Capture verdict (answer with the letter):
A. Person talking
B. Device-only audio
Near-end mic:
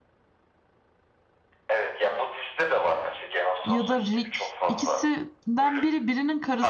A